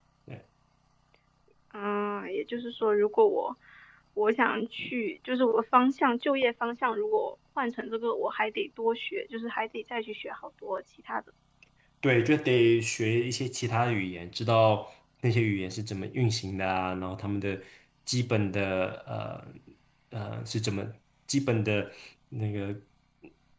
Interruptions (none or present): none